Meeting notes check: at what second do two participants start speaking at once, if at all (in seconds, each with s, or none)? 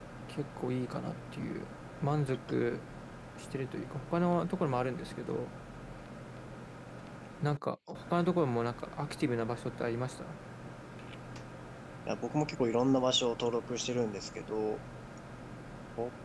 none